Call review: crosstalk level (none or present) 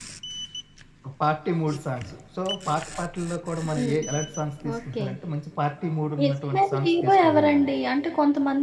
present